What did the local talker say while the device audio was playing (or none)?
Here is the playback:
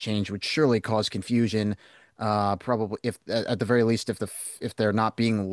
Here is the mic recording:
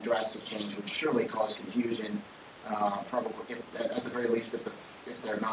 none